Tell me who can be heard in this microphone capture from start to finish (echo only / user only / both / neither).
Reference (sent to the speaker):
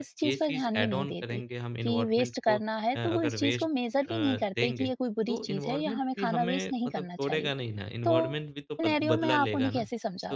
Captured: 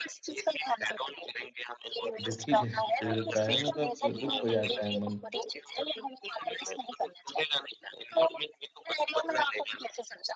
both